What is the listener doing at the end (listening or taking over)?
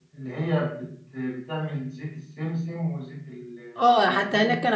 taking over